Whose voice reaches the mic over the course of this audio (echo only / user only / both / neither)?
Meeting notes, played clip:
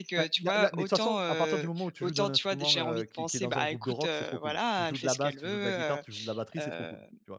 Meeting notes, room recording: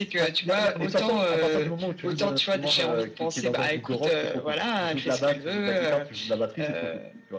echo only